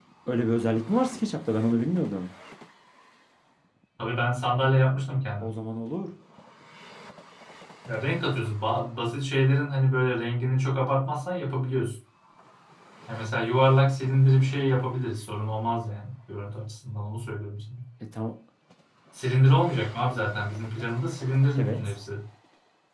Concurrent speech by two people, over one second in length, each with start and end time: none

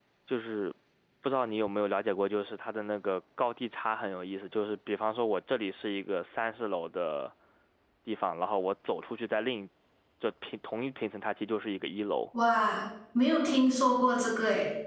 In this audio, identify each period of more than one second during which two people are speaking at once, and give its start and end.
none

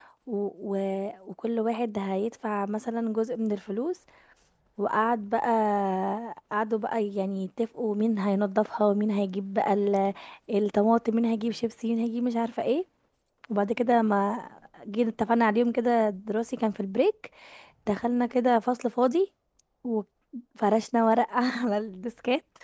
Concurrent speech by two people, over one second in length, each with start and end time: none

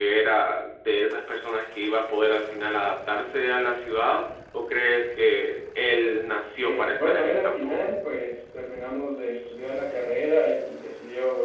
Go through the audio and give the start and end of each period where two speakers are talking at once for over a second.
6.6-7.9

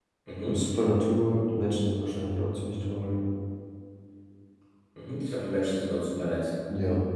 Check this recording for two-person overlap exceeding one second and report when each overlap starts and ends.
none

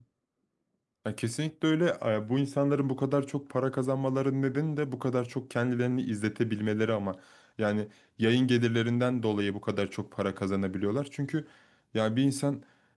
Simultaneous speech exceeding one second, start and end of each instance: none

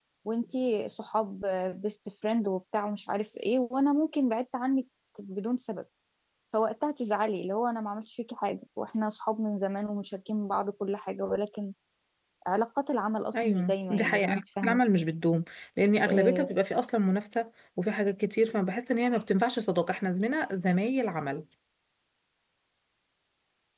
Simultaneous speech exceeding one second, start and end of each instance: 13.3-14.8

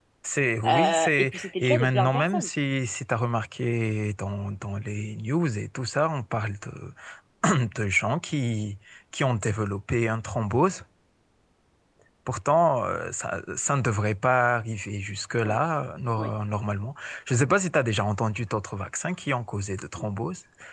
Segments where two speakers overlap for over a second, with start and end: 0.7-2.5

